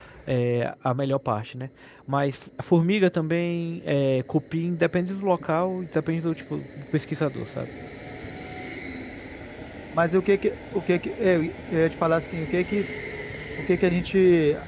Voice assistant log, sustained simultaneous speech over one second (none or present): none